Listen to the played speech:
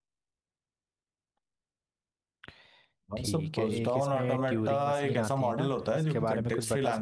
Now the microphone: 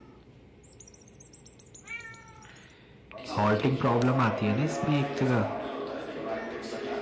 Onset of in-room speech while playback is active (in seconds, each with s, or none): 3.4 s